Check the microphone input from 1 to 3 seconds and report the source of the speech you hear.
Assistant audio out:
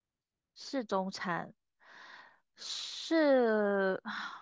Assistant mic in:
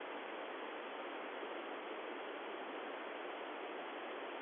neither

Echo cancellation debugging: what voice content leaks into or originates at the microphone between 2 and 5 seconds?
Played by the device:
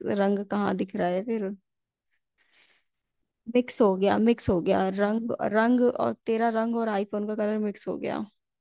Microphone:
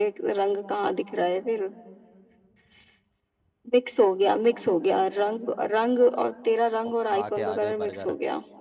echo only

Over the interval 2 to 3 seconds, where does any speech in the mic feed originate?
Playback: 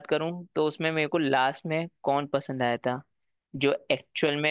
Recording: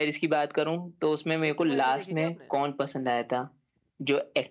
both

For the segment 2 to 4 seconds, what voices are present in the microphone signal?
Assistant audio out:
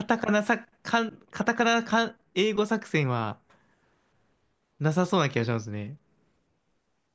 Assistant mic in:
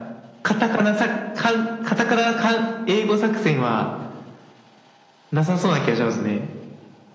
echo only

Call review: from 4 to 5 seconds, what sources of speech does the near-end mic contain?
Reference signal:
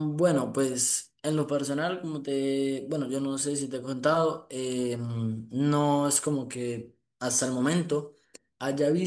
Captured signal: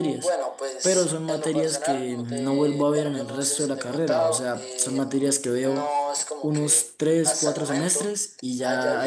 both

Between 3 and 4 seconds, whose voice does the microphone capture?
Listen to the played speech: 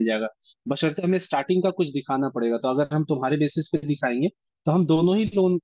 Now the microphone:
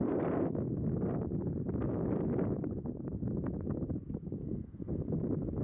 neither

